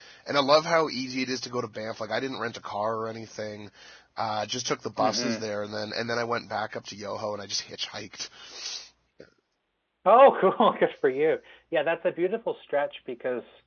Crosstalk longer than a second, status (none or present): none